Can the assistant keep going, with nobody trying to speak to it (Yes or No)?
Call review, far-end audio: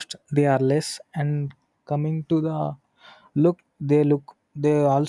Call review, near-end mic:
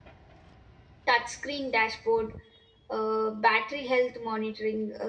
No